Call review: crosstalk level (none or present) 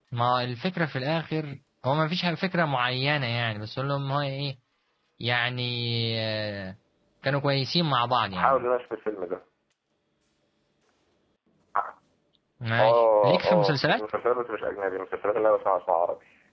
present